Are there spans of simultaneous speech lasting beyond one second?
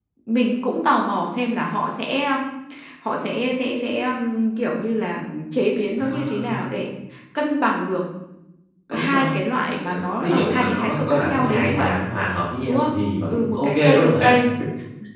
Yes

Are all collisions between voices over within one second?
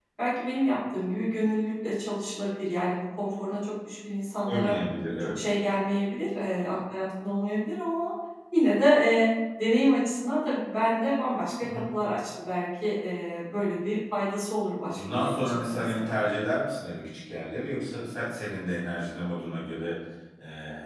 No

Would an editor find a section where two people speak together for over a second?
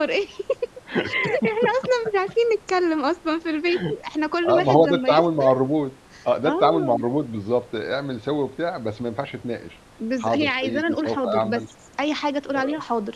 Yes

